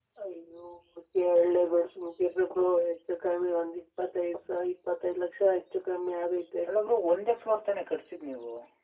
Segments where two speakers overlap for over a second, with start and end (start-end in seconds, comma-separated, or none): none